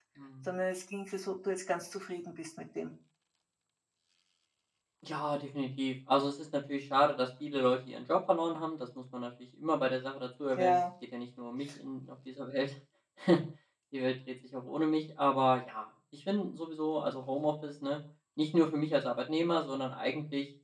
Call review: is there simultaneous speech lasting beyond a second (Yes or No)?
No